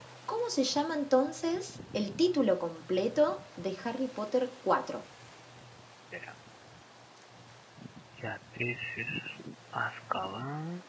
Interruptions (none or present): none